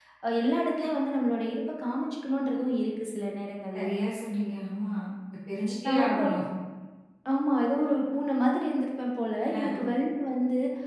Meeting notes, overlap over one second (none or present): none